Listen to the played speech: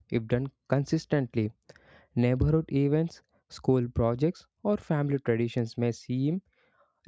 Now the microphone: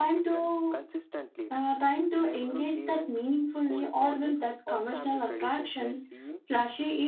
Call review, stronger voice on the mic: user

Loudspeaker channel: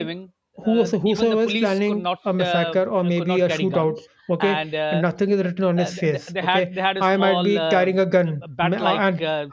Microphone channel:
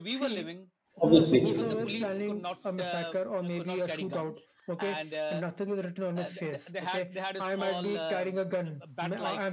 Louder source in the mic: user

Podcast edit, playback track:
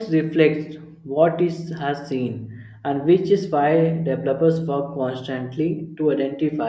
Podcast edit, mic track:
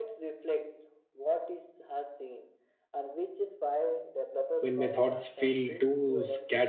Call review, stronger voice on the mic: user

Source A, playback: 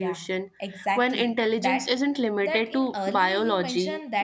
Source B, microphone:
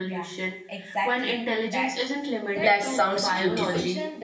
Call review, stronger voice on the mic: user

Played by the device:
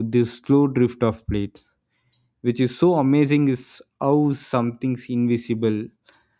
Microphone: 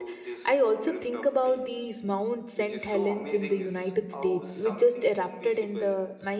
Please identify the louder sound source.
user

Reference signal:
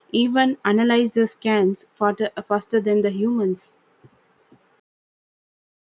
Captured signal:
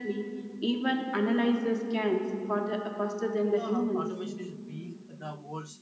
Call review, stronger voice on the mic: echo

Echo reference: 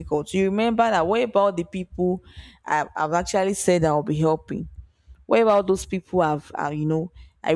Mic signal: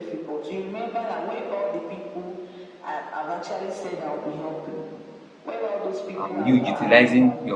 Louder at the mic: user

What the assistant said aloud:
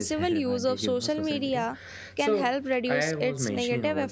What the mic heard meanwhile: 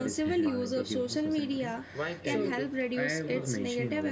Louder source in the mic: echo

